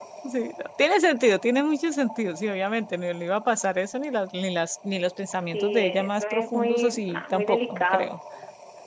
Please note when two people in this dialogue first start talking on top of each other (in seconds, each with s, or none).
5.5 s